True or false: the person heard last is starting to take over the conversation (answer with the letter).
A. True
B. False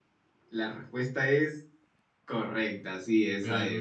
A